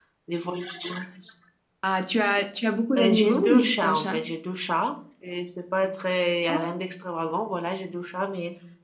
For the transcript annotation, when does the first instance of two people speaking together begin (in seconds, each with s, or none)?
3.0 s